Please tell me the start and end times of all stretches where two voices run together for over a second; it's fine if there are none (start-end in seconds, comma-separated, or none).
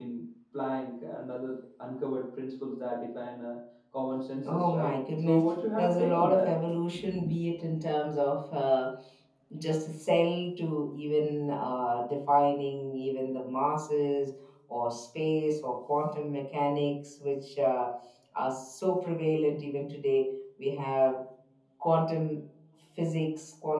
4.4-6.5